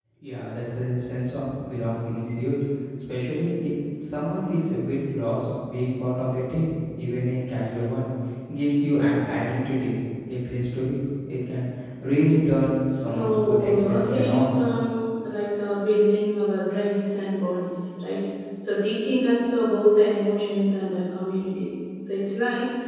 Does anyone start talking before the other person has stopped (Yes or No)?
Yes